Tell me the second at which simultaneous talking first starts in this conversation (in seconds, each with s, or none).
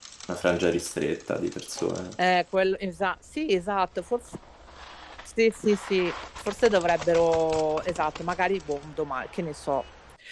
none